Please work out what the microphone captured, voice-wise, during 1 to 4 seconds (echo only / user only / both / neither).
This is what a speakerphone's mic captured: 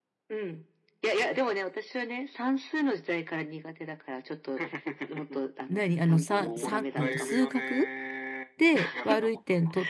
echo only